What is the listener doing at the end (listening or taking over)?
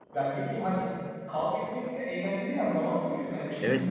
taking over